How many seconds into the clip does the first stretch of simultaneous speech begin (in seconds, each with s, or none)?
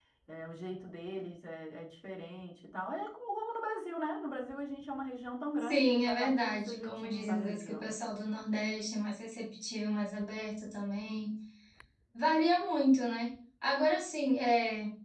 5.6 s